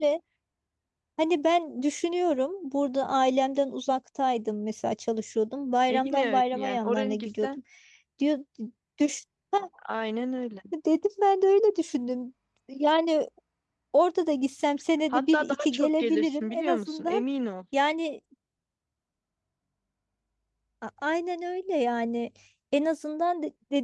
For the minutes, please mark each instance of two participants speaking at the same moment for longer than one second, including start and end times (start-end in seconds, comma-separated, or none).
5.9-7.5, 15.1-17.2